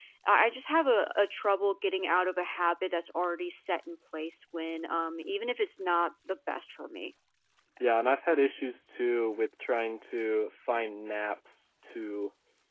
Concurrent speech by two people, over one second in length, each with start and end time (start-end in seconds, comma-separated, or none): none